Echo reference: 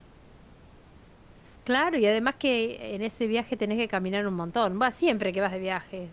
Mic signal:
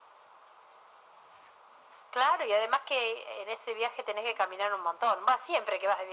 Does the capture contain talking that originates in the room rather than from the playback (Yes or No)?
No